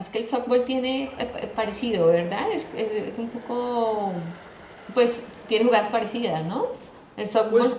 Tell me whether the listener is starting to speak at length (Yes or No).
Yes